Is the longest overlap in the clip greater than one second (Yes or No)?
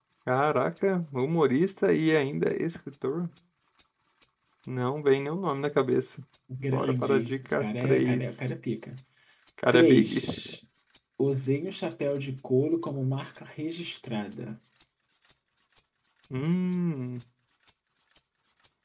Yes